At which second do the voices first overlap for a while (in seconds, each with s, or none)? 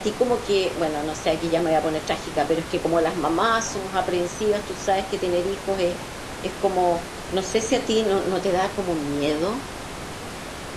none